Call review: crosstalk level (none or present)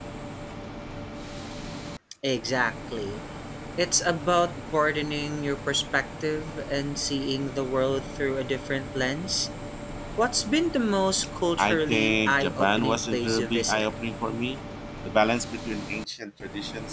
present